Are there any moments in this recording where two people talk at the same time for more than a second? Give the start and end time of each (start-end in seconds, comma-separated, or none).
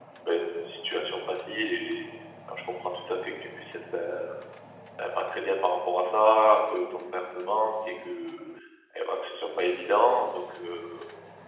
none